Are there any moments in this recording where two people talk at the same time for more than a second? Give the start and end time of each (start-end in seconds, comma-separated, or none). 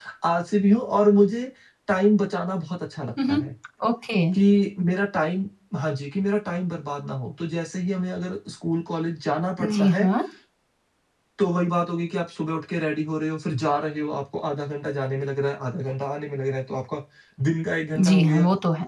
none